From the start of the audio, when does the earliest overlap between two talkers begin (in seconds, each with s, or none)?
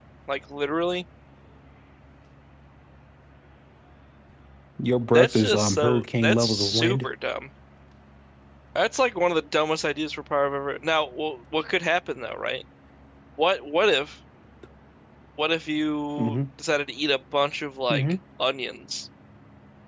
5.1 s